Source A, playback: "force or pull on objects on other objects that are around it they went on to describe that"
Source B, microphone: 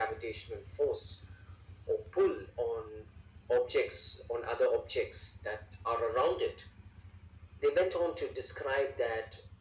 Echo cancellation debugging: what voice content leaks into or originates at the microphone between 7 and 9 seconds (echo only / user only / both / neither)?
echo only